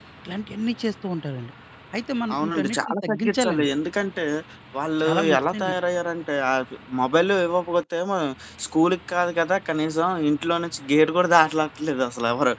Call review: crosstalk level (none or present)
present